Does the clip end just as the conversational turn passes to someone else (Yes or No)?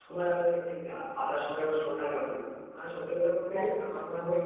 No